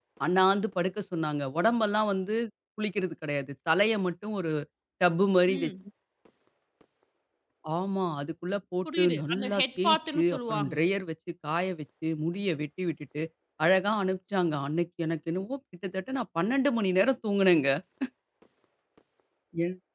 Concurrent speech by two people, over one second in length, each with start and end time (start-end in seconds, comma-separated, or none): 8.8-10.7